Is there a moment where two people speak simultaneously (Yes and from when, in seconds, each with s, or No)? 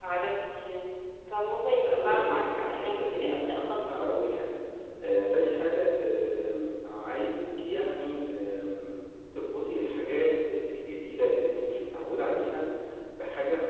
Yes, from 1.9 s